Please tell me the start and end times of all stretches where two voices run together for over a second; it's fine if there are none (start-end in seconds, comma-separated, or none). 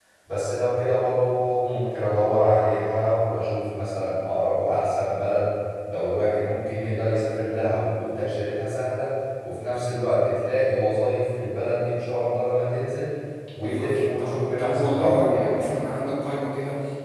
13.6-15.9